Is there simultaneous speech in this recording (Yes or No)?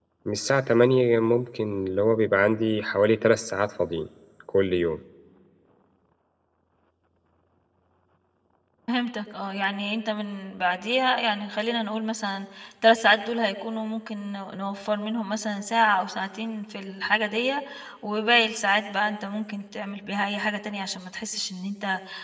No